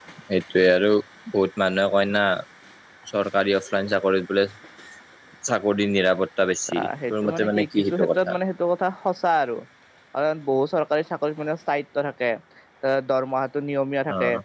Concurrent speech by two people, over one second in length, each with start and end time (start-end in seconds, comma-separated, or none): 6.7-8.3